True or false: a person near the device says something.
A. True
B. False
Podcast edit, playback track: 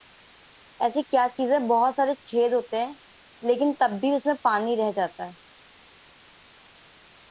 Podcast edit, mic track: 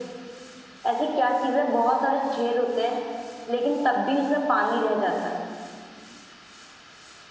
B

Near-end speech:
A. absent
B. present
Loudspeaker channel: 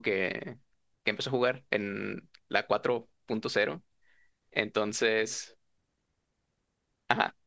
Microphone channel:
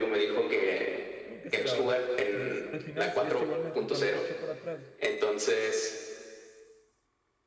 B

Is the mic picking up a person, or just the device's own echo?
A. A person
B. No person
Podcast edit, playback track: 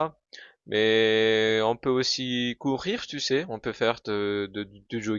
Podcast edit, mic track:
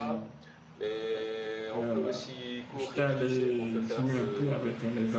A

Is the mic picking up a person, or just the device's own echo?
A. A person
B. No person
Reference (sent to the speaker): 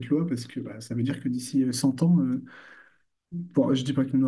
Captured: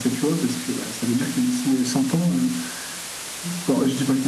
B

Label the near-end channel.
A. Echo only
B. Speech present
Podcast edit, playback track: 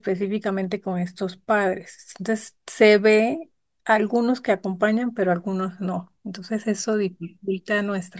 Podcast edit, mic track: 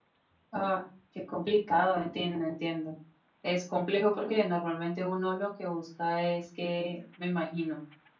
B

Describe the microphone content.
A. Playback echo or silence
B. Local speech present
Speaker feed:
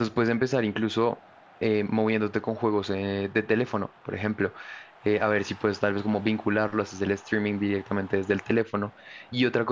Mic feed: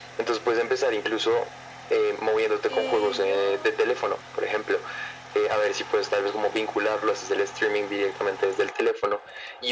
B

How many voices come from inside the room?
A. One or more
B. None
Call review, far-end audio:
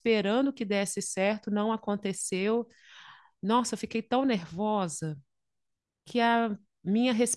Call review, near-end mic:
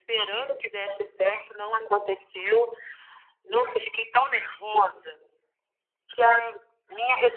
B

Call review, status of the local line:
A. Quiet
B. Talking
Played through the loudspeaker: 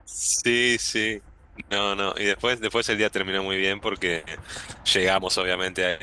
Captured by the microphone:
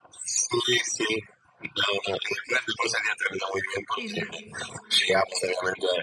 B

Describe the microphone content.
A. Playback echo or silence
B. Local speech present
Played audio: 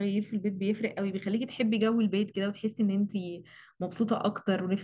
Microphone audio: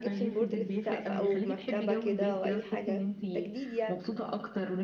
B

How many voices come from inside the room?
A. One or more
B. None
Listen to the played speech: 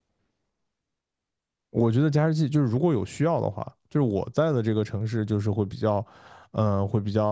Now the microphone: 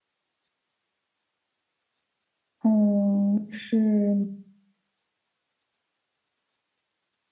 A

